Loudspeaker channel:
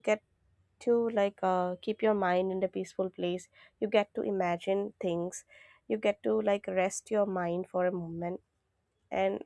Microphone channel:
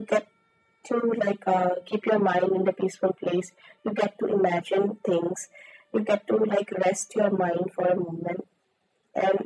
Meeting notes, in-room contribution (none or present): none